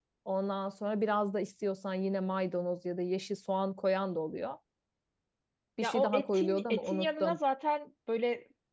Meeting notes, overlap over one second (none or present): present